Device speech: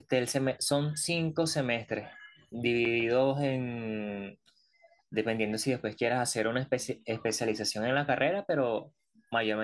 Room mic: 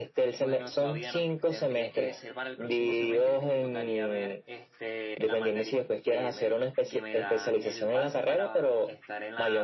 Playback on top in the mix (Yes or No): Yes